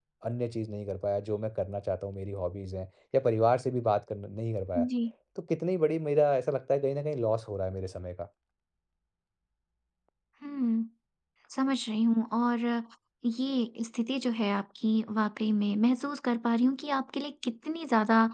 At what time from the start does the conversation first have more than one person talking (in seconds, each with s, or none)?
none